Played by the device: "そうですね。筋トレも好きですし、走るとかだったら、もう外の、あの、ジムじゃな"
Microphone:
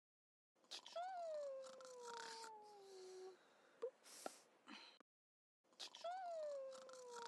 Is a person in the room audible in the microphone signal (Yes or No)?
No